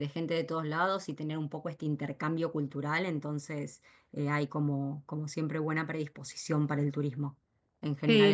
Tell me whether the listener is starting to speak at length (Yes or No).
Yes